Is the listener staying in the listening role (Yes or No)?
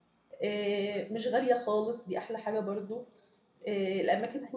Yes